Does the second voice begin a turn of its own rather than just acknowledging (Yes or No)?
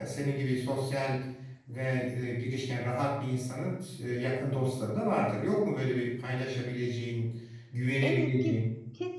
Yes